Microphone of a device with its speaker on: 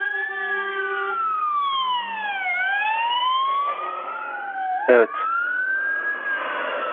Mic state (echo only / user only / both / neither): user only